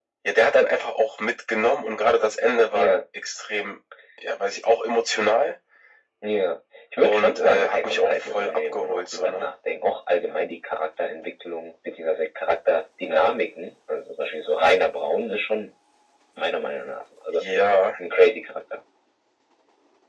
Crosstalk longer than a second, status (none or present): present